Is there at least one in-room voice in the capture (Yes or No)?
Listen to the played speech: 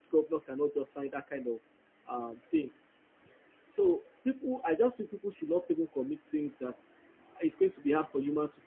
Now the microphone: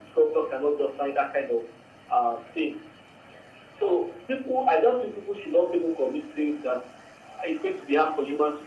No